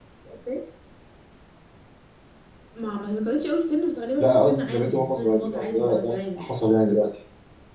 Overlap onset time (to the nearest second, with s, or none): 4 s